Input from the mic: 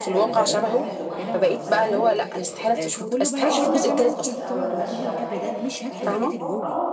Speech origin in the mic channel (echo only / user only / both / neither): both